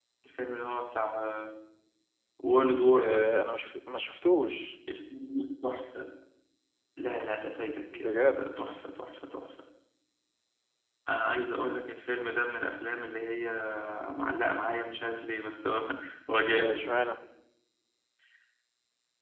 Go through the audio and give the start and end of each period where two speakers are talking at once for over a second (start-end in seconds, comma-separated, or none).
none